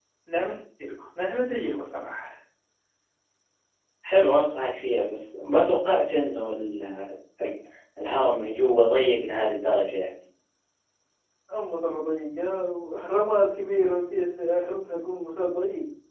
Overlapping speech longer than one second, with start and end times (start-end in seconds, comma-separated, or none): none